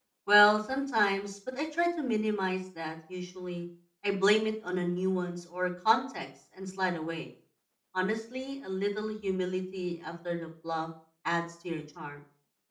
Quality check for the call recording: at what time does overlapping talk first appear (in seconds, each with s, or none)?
none